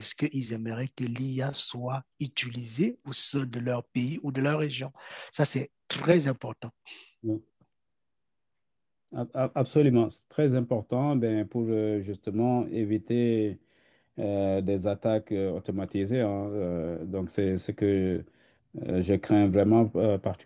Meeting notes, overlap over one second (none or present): none